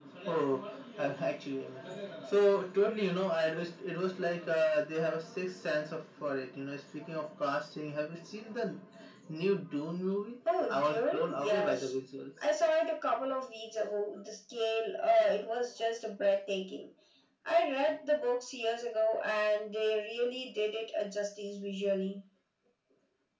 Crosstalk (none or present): present